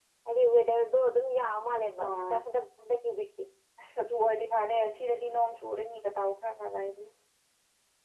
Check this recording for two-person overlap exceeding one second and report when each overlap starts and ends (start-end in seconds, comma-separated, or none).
none